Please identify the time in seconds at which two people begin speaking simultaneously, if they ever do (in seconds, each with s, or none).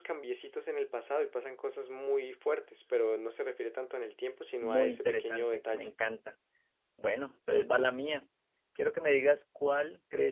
4.6 s